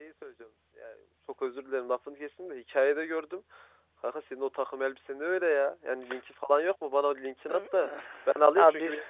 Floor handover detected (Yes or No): No